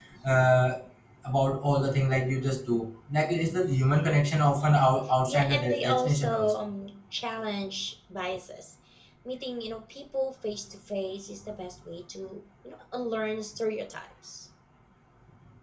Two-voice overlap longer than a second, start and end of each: 5.3-6.7

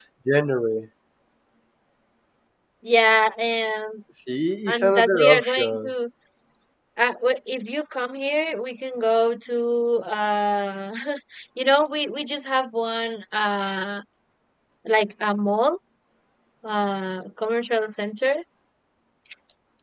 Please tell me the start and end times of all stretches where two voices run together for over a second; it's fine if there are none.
4.7-5.9

